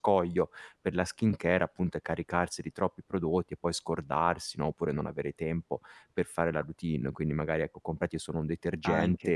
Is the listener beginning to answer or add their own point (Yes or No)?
No